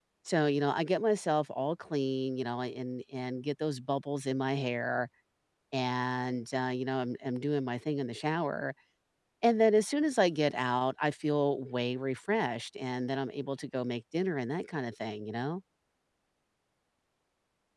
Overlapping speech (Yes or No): No